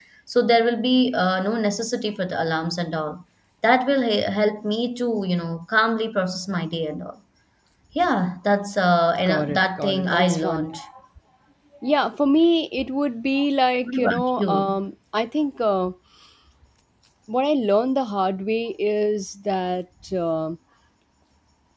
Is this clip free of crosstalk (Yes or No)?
No